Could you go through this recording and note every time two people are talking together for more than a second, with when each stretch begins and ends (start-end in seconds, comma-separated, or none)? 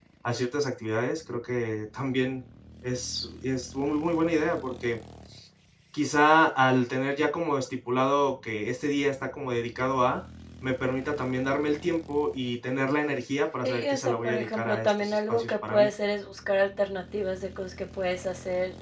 13.6-15.9